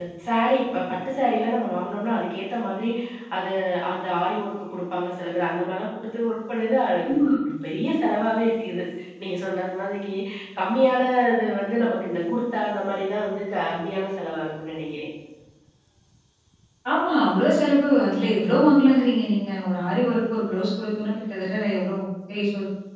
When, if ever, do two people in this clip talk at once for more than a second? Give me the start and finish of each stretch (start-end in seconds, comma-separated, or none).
none